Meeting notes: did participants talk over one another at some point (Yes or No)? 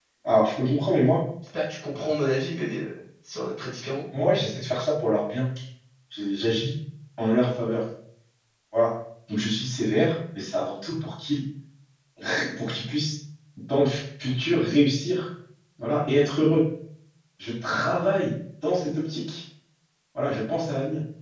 No